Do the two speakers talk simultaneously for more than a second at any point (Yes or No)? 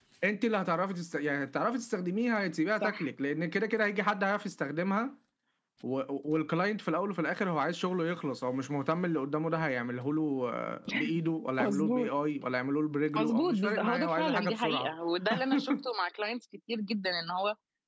Yes